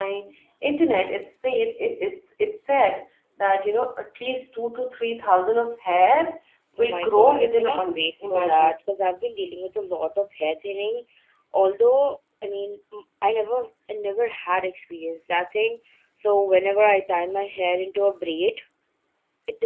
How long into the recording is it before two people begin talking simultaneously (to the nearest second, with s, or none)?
7 s